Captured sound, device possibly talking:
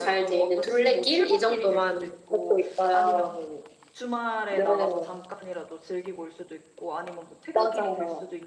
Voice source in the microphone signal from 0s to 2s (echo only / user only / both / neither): both